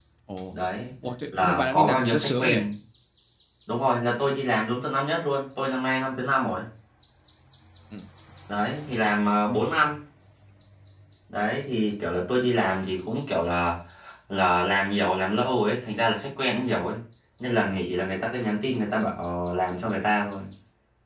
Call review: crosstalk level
present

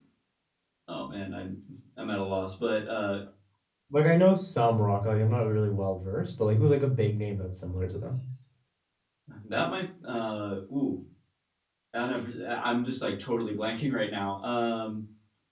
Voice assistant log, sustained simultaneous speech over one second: none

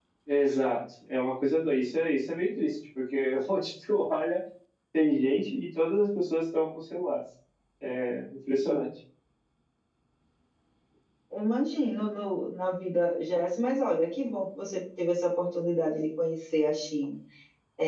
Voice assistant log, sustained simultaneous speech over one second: none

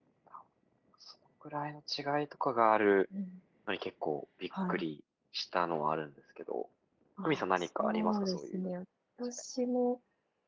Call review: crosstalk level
present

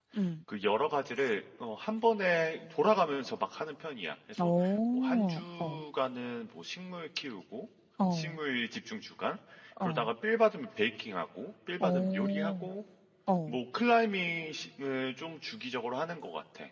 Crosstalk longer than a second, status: present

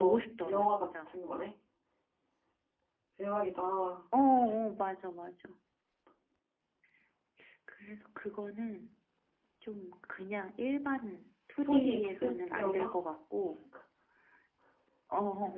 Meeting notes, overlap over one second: present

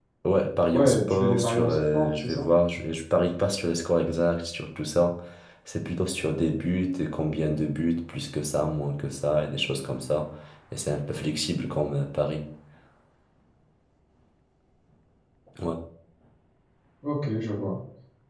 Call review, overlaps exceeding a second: present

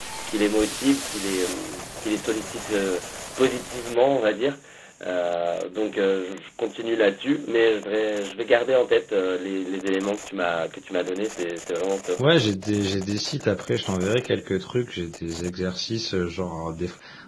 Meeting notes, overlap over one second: none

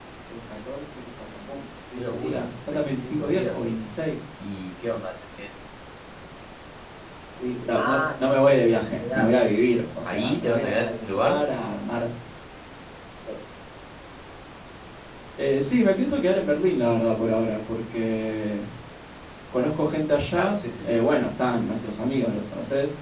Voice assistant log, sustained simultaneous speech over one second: present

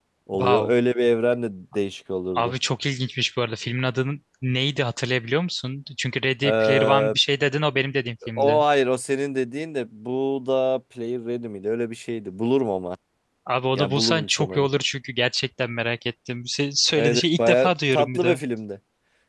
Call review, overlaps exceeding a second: present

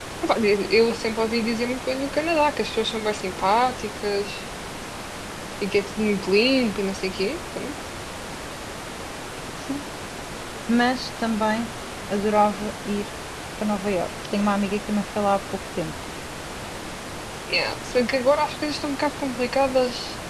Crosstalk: none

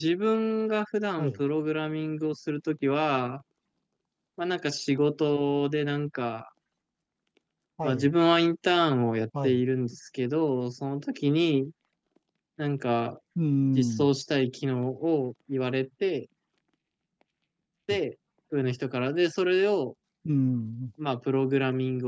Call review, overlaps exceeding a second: none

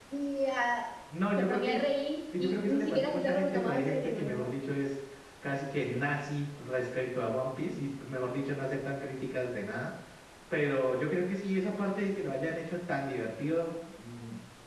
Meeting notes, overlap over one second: present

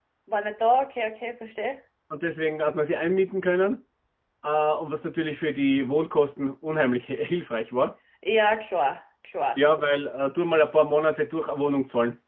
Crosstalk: none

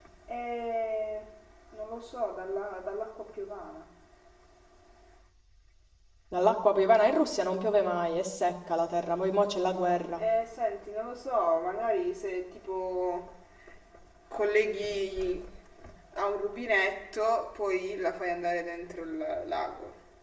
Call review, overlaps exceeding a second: none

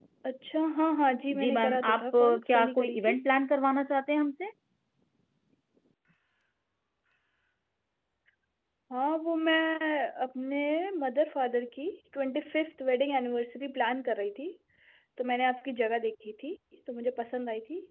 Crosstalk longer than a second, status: present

